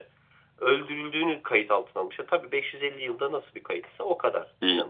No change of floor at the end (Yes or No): No